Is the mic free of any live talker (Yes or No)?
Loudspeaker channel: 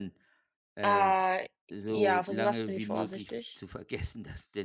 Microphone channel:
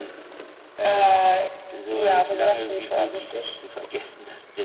Yes